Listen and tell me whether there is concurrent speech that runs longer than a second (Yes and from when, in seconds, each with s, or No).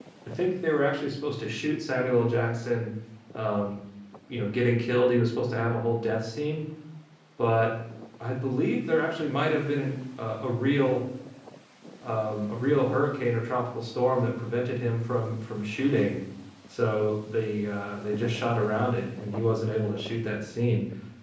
No